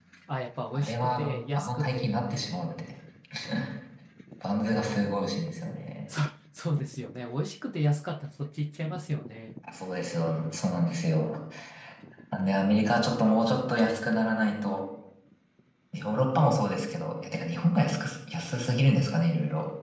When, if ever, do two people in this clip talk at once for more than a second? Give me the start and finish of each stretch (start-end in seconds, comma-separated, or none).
0.7-2.6